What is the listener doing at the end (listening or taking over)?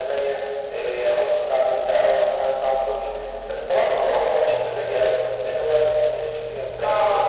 taking over